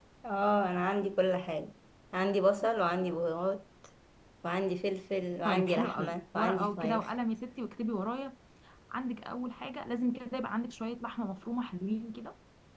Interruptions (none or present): present